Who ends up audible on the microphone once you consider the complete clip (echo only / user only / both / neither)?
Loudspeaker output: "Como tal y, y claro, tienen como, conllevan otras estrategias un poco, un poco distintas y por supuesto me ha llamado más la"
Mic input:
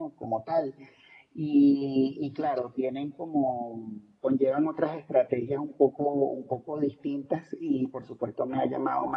echo only